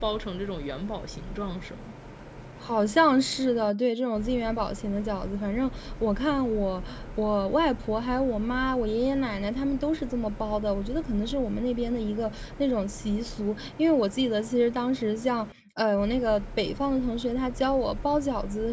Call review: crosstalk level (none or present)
none